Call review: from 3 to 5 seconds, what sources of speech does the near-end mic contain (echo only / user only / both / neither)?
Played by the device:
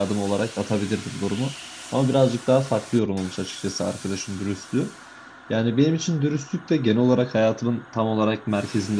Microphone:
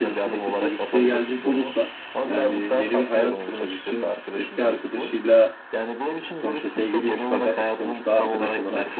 both